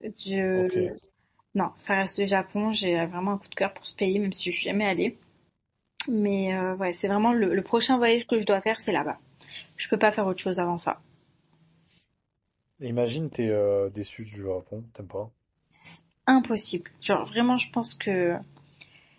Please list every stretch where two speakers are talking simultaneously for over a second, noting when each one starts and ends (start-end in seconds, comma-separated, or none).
none